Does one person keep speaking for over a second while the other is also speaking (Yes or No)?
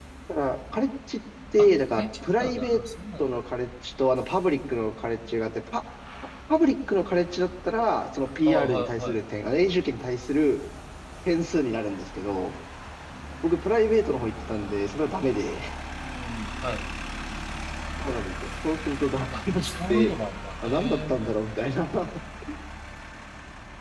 Yes